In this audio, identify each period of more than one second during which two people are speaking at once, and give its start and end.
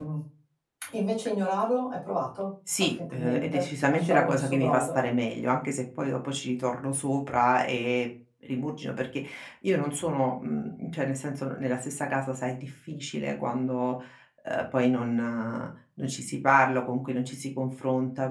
2.8-5.0

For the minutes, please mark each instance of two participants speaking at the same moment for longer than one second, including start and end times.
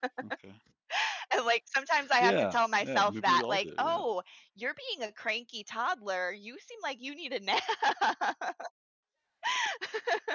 2.2-4.0

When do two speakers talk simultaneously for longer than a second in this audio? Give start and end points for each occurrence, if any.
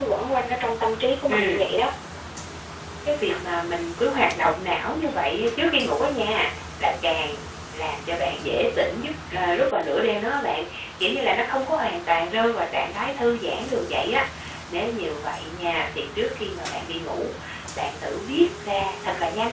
none

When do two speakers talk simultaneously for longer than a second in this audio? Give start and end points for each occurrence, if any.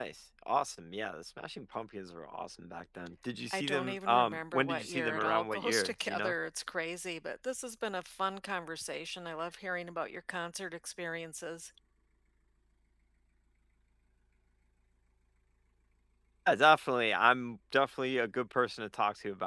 3.5-6.3

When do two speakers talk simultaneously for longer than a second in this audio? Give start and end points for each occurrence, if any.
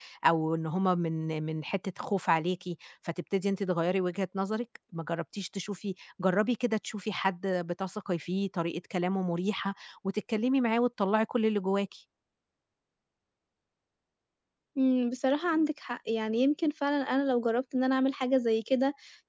none

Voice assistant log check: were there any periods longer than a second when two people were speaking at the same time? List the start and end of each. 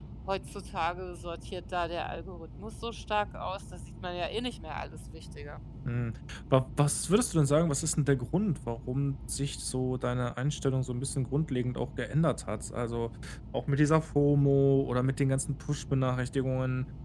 none

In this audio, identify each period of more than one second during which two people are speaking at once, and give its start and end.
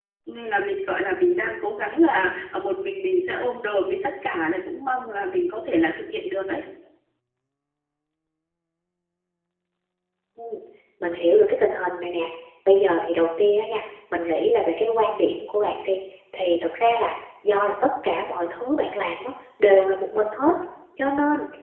none

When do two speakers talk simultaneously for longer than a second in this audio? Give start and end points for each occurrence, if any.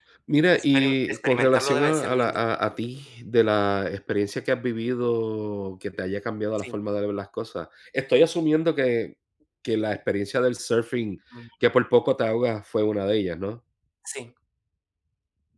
0.5-2.4

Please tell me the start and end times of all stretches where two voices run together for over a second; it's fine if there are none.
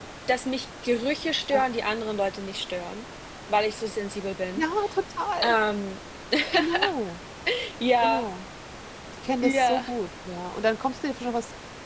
none

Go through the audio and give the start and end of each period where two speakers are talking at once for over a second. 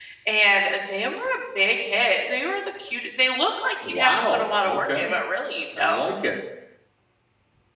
3.9-5.1

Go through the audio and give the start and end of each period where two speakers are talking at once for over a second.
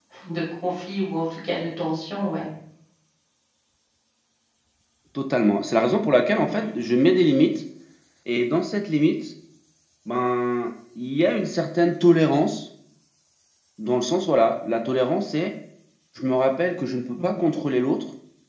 none

